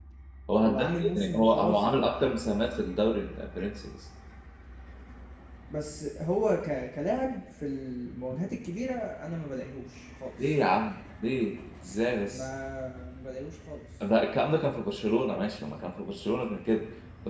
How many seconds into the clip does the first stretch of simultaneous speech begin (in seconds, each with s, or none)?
0.6 s